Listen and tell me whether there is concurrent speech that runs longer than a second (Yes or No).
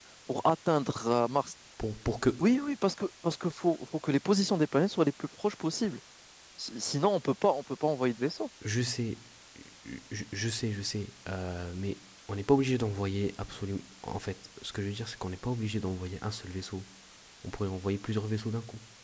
No